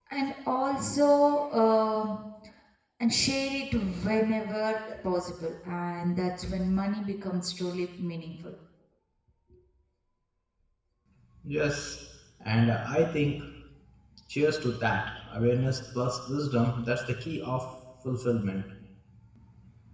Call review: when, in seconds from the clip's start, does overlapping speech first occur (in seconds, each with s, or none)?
none